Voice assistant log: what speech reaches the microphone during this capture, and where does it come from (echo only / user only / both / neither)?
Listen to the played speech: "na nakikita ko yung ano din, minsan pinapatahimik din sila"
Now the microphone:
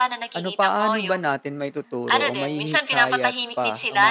both